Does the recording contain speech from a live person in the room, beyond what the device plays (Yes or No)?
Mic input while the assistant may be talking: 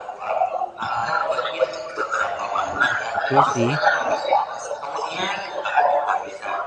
Yes